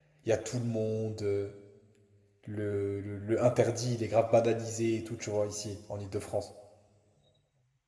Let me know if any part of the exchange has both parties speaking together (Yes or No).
No